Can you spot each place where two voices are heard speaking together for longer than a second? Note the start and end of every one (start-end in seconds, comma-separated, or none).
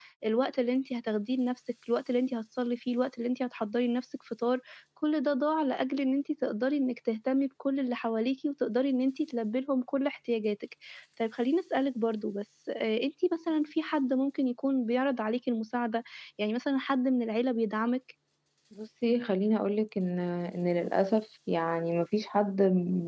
none